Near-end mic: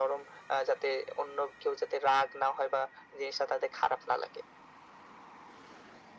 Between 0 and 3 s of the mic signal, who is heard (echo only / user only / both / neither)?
echo only